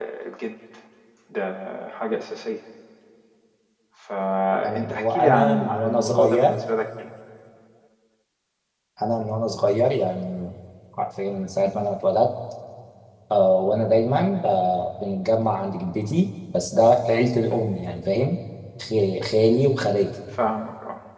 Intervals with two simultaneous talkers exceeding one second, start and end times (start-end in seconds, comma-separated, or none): 4.6-6.5